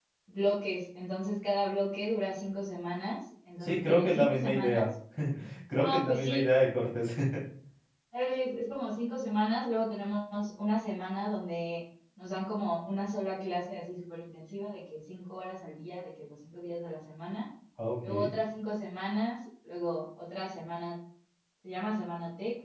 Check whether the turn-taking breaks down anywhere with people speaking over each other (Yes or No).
Yes